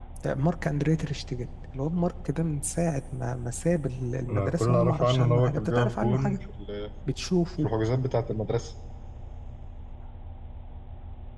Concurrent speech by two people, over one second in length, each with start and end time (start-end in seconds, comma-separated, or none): 4.3-6.4